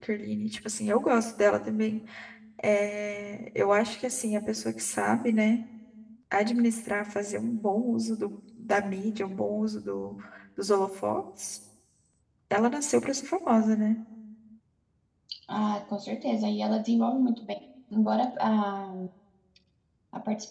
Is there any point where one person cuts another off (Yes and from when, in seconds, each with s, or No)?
No